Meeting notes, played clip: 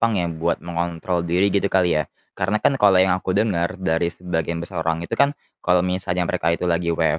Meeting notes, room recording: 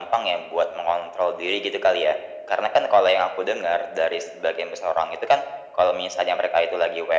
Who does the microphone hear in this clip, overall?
echo only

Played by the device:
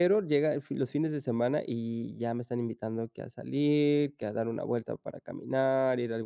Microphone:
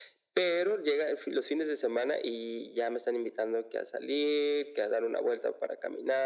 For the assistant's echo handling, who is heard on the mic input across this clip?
echo only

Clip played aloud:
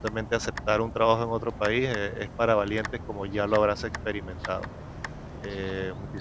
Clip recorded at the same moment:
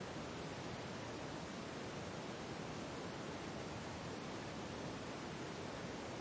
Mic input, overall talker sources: neither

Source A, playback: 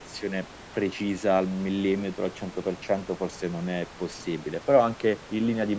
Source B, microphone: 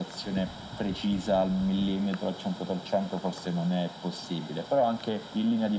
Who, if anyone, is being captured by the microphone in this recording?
echo only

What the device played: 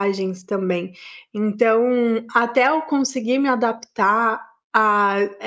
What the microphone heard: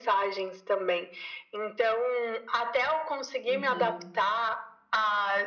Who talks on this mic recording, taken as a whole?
both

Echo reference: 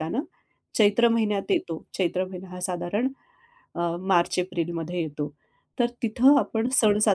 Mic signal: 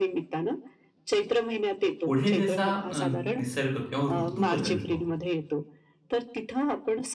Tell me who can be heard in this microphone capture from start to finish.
both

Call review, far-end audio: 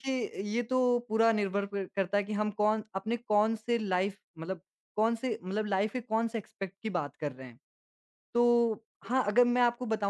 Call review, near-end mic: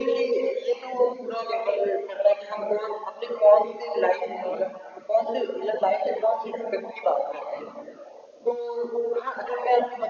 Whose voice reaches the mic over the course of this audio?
echo only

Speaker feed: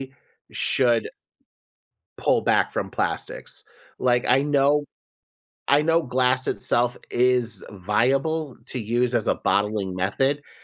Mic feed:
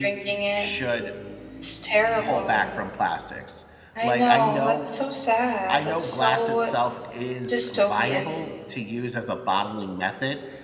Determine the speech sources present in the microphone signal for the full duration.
both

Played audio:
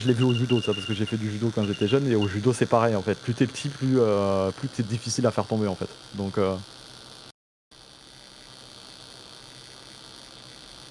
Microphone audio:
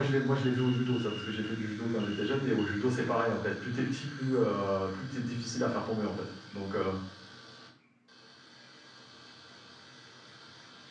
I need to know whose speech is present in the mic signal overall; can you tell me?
echo only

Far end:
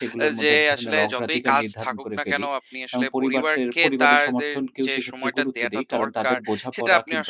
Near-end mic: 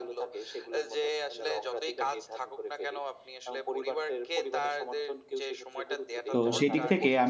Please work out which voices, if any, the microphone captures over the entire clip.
both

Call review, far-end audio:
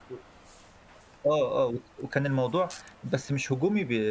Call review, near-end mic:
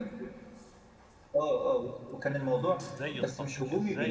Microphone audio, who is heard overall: both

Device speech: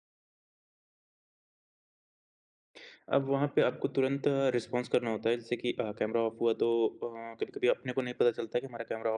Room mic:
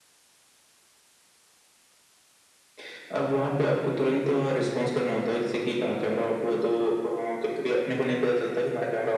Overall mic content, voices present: echo only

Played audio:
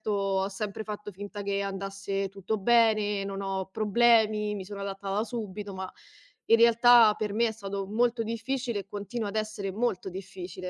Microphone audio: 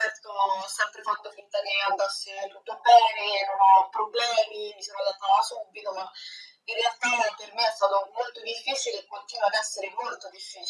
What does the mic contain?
echo only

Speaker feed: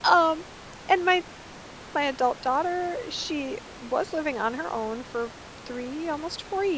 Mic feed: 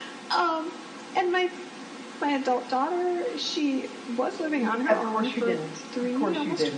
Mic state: both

